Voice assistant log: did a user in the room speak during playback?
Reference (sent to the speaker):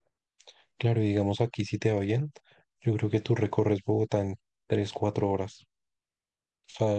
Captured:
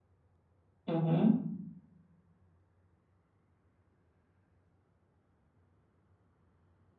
Yes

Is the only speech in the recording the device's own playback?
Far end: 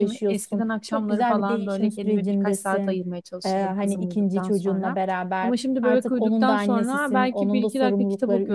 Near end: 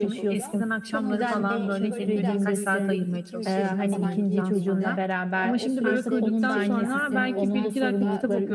No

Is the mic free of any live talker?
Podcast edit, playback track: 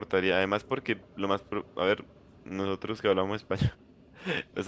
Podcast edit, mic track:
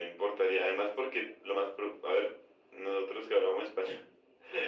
Yes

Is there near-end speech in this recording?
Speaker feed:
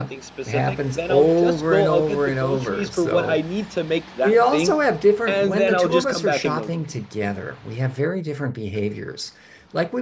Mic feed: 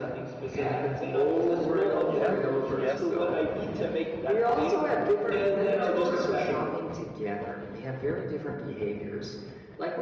Yes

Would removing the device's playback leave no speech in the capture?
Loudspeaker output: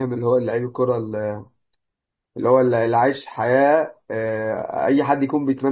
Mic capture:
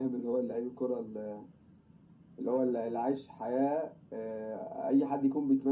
Yes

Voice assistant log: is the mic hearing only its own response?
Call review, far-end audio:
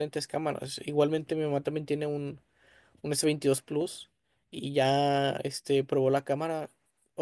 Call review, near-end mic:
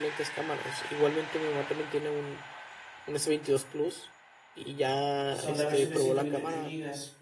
No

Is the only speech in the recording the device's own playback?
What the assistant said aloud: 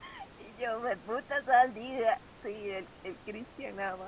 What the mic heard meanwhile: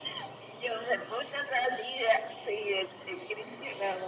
Yes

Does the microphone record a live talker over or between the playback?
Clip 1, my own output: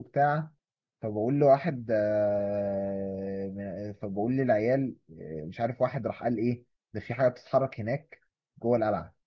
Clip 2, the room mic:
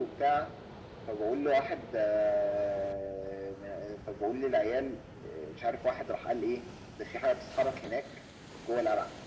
No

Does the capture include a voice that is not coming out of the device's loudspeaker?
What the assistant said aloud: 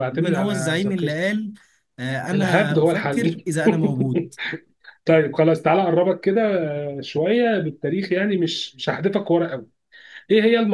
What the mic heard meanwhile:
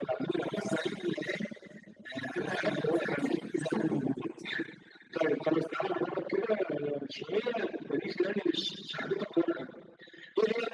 No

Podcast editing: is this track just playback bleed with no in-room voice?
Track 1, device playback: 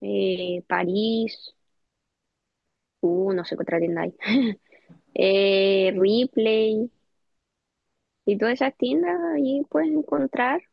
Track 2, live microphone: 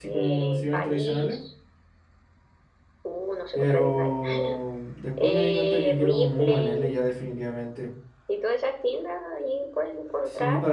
No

